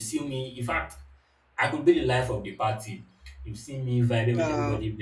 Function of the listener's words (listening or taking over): listening